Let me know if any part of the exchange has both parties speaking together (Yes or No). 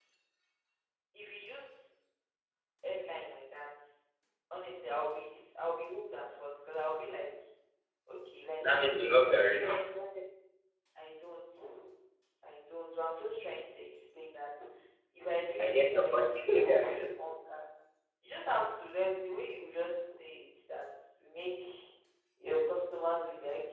Yes